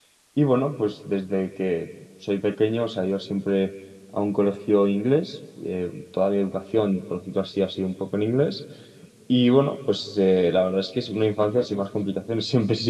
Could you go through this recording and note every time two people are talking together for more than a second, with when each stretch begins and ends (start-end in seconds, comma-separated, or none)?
none